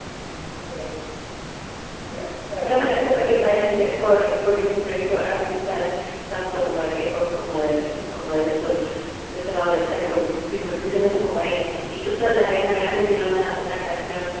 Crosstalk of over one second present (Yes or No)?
Yes